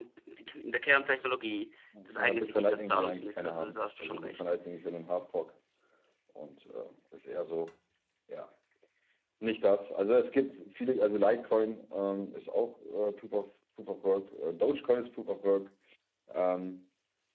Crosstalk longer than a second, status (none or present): present